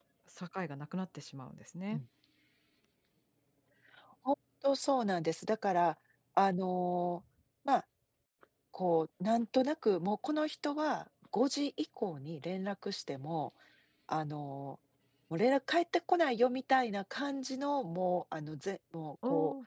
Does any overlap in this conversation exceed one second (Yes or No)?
No